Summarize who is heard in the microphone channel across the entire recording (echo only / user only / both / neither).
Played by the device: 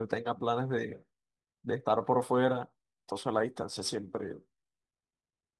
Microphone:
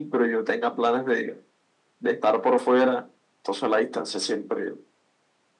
echo only